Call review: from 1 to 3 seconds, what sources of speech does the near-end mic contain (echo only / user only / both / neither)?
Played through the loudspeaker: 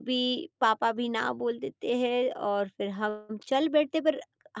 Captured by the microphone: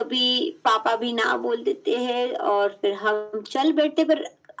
echo only